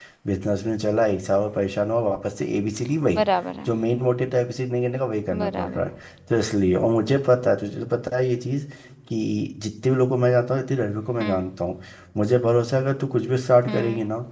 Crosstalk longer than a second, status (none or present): none